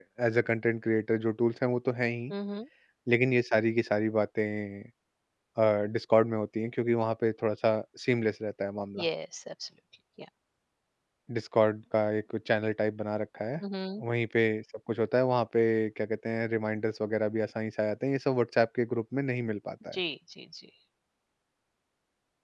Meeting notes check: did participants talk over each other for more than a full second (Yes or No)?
No